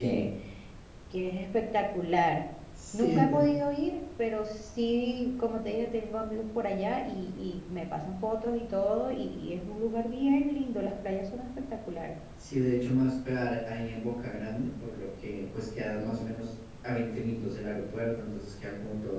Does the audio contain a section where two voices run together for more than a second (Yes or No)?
No